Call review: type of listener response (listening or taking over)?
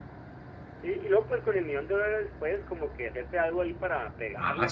taking over